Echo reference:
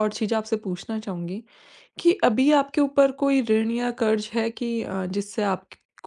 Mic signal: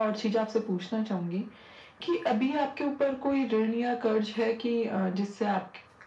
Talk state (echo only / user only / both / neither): echo only